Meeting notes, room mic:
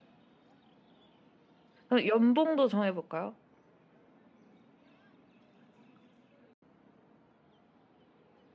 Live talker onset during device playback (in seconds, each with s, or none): 1.9 s